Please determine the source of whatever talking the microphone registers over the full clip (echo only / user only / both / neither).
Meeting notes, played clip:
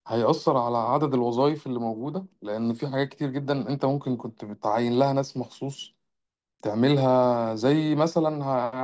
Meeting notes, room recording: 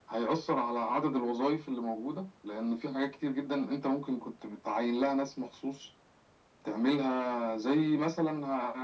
echo only